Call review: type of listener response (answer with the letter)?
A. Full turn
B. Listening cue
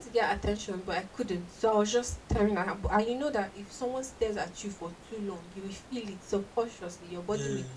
B